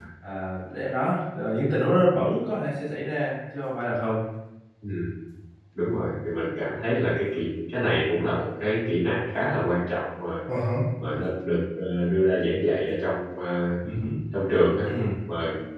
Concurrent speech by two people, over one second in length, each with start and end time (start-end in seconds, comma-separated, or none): none